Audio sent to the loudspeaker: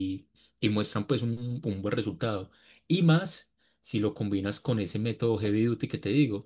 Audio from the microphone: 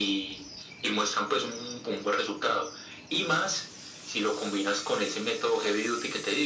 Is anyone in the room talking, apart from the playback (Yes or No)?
No